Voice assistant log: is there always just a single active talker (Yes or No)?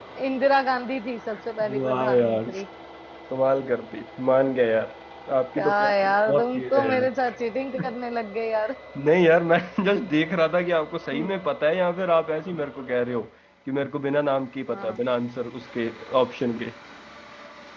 No